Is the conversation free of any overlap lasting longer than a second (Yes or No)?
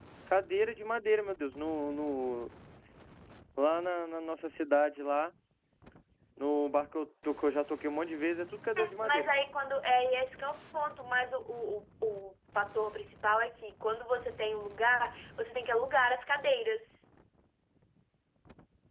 Yes